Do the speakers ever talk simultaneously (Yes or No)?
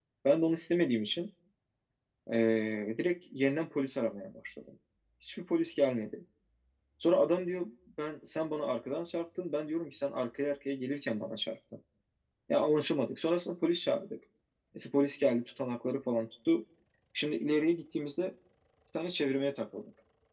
No